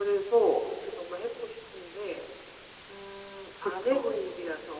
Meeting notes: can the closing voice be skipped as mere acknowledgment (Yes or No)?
Yes